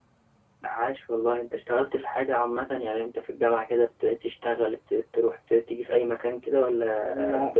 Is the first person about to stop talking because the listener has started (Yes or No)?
Yes